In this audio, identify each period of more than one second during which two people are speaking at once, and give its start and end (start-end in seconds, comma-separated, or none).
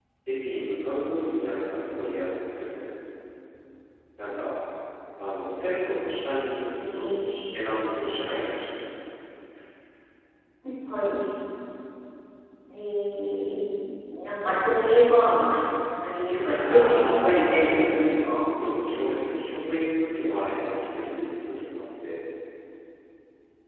16.6-17.9